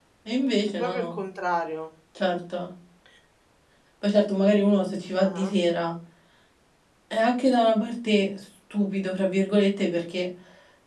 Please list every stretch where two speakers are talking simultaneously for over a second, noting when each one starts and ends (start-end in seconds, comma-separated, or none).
none